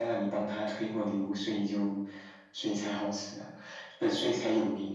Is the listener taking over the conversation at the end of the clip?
No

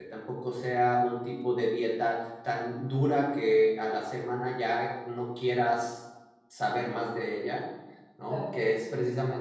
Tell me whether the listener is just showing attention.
Yes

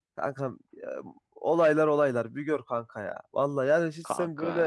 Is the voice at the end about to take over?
No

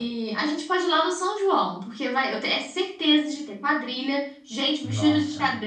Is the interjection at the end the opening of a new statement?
No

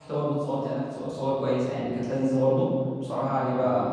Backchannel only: Yes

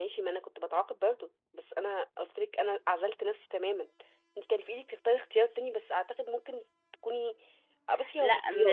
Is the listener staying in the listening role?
No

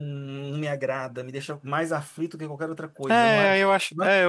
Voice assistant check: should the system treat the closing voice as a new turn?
Yes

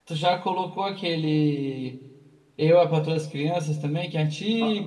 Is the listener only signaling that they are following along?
No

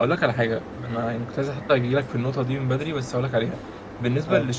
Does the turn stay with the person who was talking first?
Yes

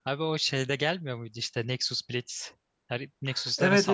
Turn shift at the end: Yes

